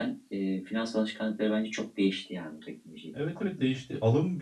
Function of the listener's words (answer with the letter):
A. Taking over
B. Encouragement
A